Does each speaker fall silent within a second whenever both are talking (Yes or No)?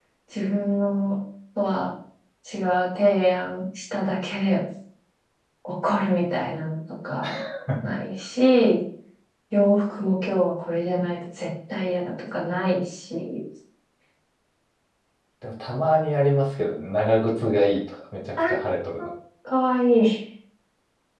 Yes